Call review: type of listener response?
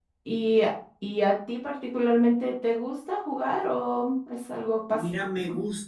taking over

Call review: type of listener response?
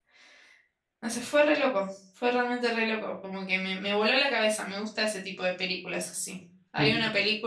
listening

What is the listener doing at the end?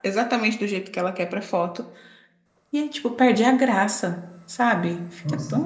taking over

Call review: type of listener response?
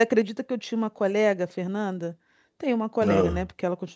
listening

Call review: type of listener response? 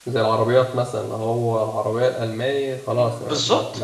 taking over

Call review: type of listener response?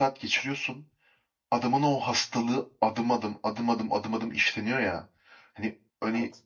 listening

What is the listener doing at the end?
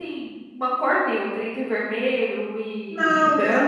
taking over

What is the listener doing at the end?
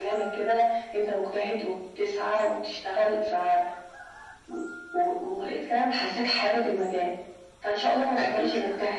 listening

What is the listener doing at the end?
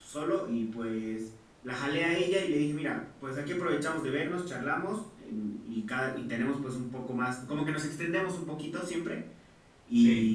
listening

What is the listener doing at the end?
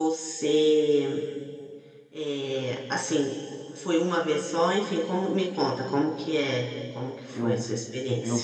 taking over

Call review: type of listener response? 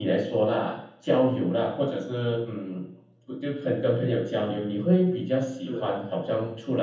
listening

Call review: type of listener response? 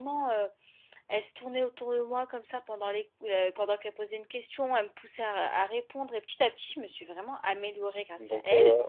taking over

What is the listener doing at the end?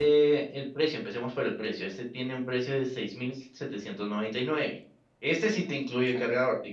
listening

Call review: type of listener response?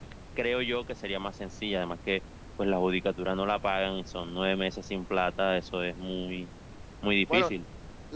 taking over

